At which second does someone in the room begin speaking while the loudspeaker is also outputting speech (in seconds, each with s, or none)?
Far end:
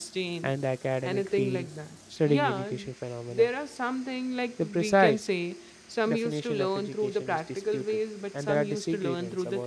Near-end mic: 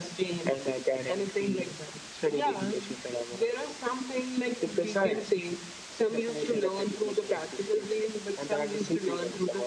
none